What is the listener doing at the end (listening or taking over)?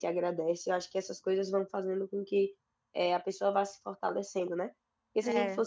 listening